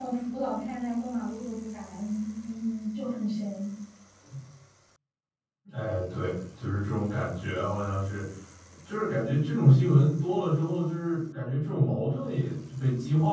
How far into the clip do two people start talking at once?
none

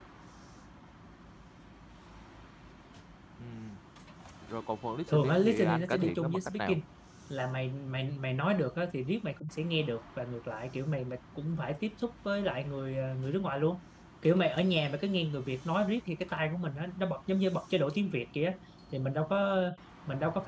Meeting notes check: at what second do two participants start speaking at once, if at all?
5 s

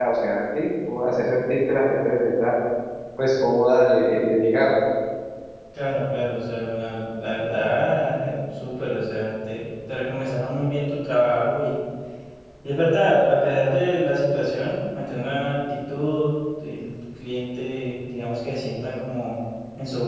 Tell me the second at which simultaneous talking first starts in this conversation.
none

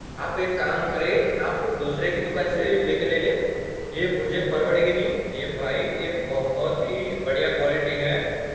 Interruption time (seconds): none

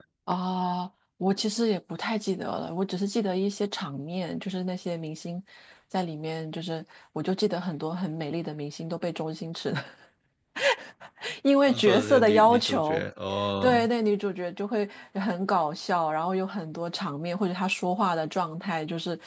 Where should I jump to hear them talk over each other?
12 s

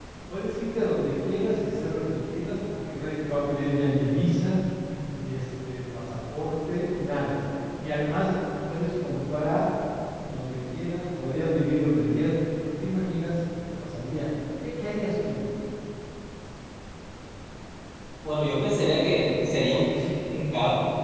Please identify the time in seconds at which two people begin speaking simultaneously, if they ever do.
none

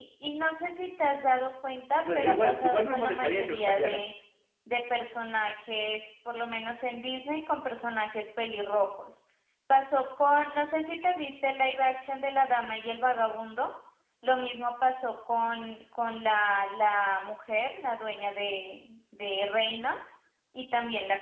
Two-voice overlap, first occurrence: 2 s

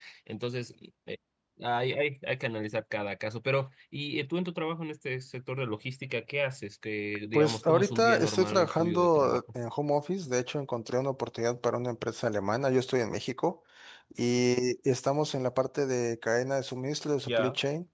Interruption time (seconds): 7 s

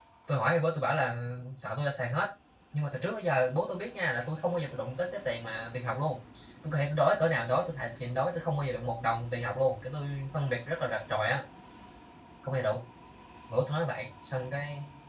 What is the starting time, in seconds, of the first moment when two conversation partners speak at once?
none

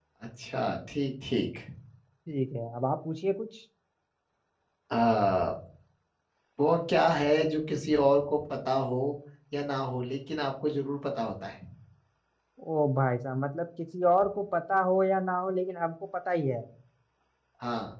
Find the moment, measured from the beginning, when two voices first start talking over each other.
none

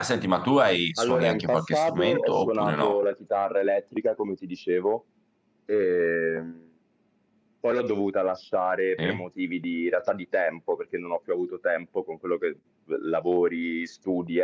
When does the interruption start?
1 s

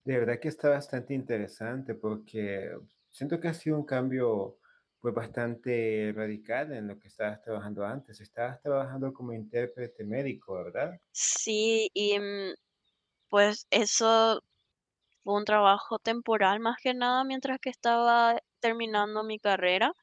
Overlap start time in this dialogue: none

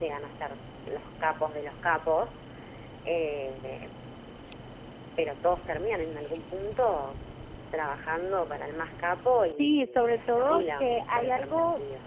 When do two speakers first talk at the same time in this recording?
10 s

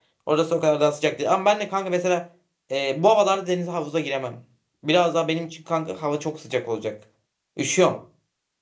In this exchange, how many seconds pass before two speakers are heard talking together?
none

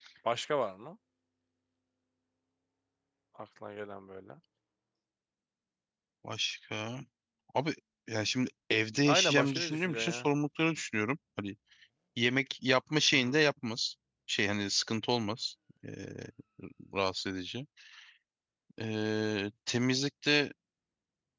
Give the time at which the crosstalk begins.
9 s

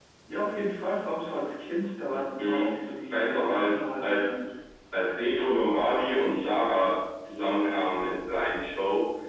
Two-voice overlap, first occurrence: 2 s

